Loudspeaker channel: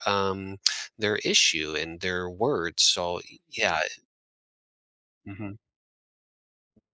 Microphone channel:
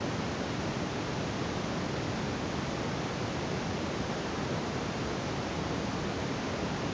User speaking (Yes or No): No